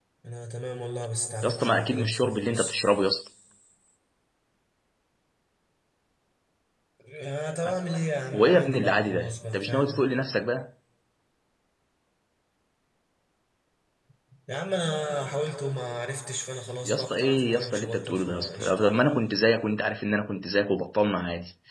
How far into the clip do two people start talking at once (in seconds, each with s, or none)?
1.4 s